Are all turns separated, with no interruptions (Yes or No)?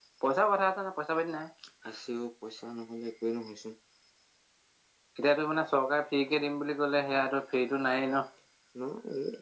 Yes